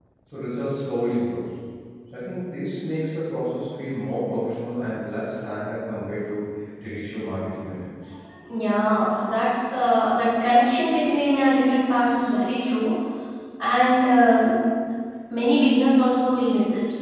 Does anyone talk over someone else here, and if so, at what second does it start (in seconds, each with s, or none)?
none